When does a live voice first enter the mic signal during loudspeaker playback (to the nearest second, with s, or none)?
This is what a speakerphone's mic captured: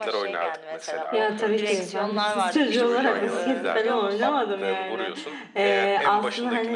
1 s